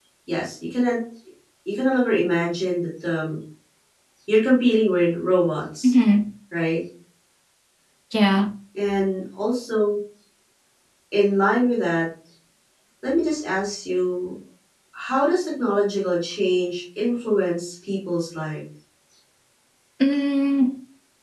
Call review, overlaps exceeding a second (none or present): none